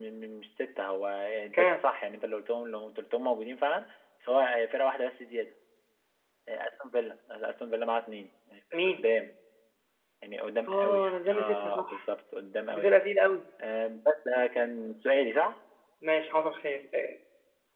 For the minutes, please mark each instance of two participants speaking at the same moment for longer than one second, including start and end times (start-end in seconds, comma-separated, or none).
10.7-12.0